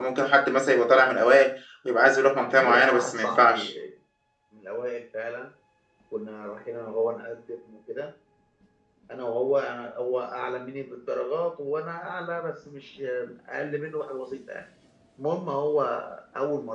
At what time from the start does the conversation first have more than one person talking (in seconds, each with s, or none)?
2.5 s